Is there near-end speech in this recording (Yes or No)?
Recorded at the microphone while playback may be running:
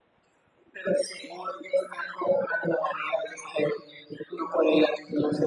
No